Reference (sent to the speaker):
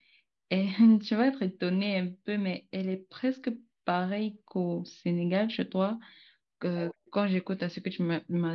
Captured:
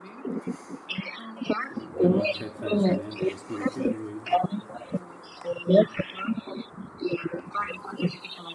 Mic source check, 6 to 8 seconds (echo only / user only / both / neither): echo only